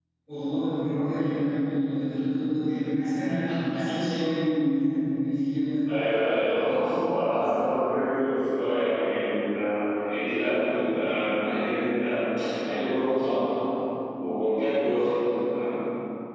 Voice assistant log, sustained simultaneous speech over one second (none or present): none